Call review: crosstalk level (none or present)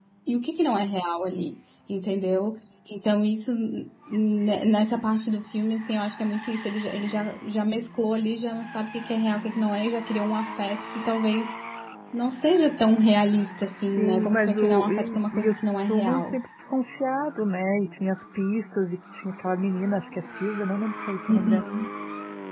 present